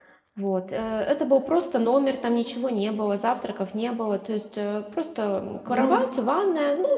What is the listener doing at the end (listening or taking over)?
listening